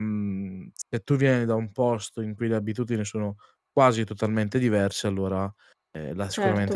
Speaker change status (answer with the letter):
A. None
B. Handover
B